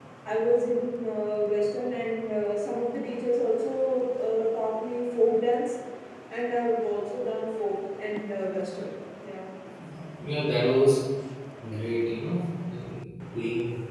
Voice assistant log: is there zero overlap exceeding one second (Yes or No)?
Yes